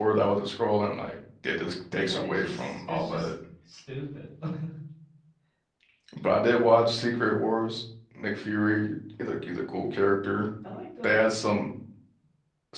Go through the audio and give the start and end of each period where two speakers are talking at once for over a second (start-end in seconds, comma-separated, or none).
2.0-3.3